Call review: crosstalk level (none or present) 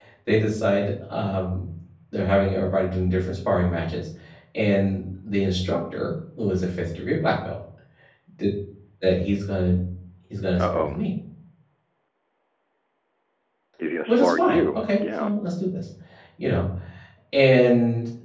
present